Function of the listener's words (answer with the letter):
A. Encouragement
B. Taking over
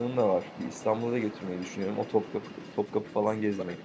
B